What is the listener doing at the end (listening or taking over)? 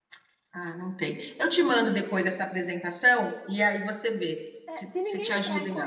taking over